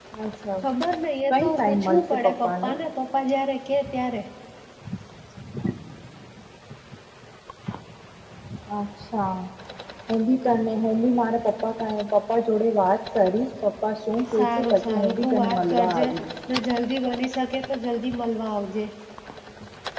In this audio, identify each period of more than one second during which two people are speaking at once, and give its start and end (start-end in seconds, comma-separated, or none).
1.3-2.7, 14.4-16.1